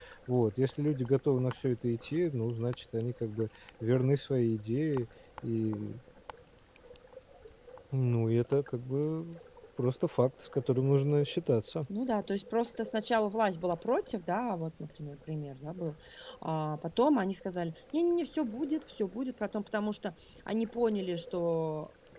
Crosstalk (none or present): none